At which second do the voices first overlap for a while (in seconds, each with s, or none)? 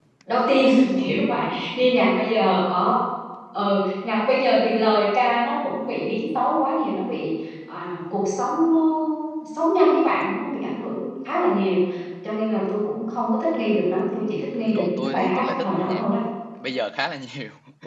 14.8 s